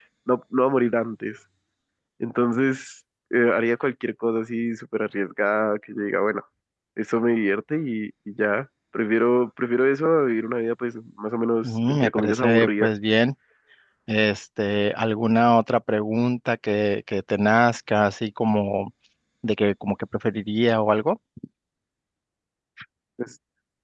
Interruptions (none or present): present